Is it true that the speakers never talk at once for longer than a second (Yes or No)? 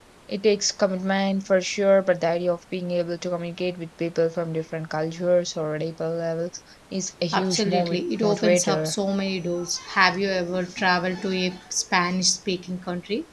No